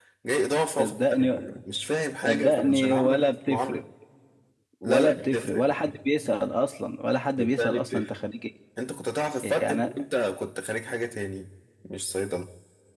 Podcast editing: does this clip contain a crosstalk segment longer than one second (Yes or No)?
Yes